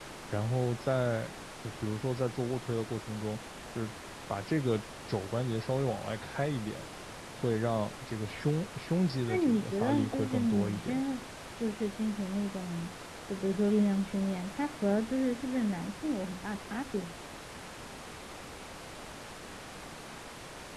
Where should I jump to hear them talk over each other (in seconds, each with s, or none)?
9.3 s